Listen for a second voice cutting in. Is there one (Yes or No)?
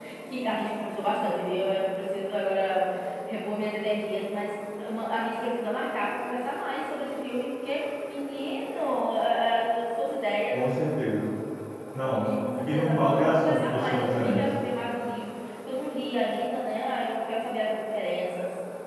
Yes